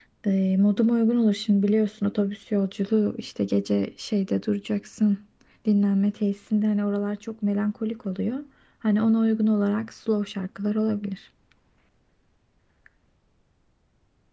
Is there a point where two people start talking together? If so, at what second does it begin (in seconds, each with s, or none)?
none